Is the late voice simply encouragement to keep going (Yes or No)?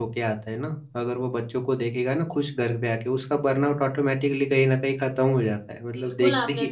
No